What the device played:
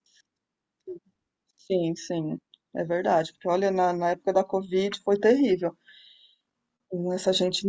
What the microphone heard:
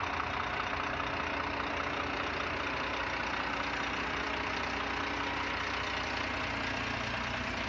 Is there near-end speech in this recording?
No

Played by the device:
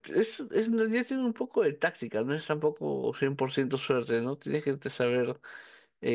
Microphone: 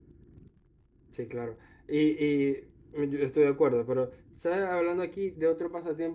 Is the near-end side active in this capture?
Yes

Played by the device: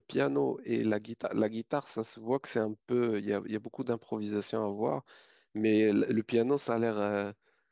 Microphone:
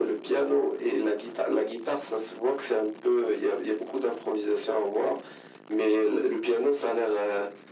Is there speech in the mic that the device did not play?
No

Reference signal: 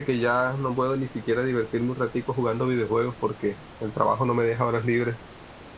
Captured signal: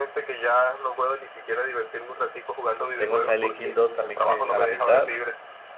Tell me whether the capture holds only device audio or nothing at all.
No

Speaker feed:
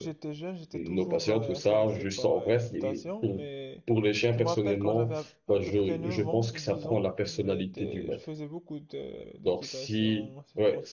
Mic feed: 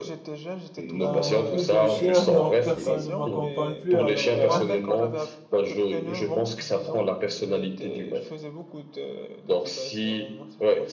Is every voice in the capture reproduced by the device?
No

